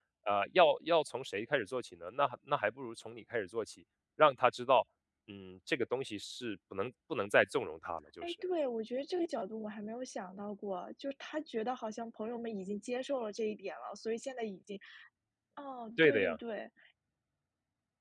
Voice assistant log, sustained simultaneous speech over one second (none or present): none